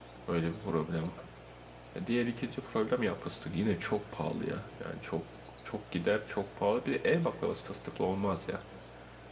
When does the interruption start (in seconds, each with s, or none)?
none